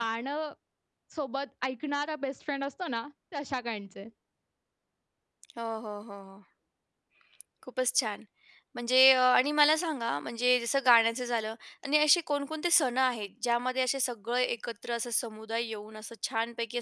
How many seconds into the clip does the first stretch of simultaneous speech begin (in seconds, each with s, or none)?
none